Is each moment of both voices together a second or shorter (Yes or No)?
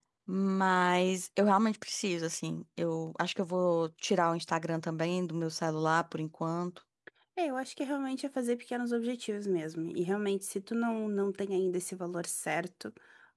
Yes